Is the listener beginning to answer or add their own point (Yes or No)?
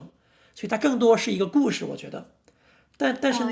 No